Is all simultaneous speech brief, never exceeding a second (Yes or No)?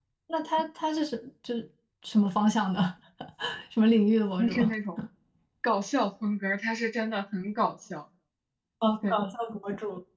Yes